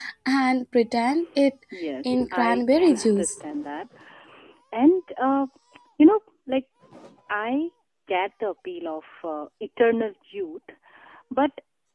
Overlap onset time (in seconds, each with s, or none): 2.0 s